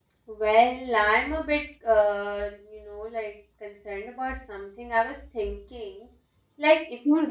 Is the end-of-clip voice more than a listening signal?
No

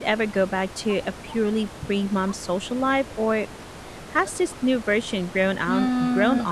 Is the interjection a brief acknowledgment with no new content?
No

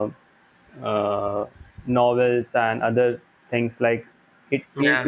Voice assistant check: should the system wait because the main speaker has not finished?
Yes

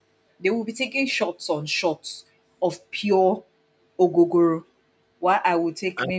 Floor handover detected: No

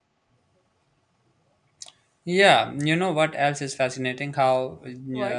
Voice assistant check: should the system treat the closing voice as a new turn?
No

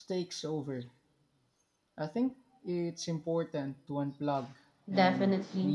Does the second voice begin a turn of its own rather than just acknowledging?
Yes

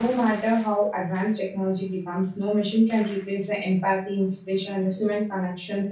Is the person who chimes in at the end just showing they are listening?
Yes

